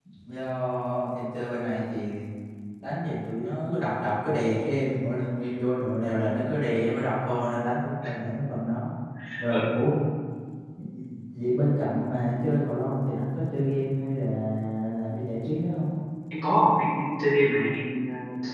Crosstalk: none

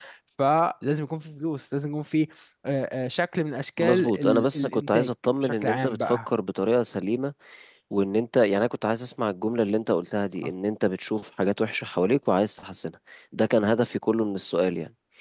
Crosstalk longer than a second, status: present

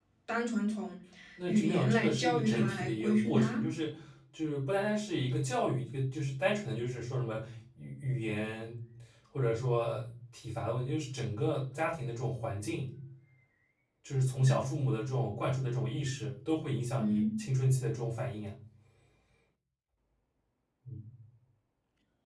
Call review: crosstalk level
present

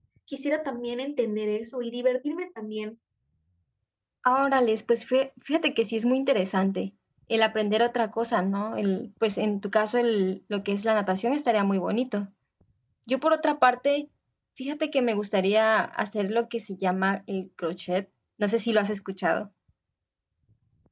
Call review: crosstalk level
none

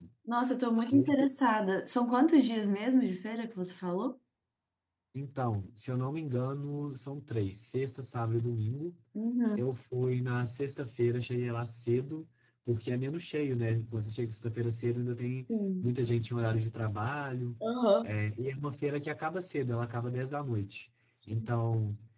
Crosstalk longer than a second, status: none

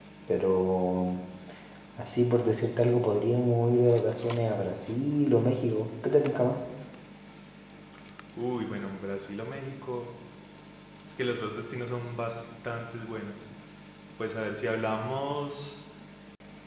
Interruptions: none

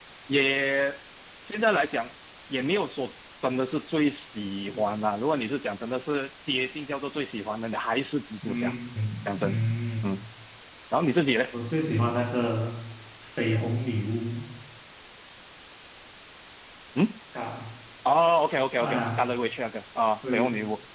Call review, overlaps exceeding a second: none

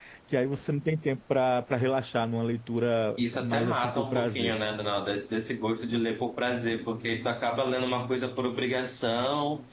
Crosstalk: present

